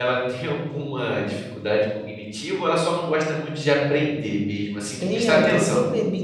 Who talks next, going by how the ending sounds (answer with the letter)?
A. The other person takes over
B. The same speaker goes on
A